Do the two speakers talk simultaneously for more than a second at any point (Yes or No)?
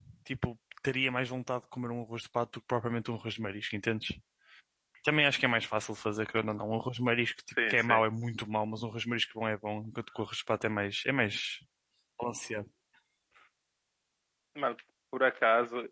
No